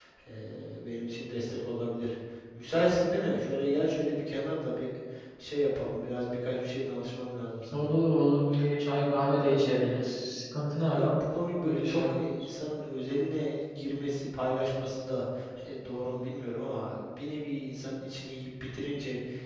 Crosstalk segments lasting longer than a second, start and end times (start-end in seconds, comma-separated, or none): none